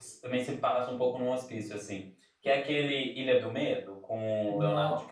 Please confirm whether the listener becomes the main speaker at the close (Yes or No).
Yes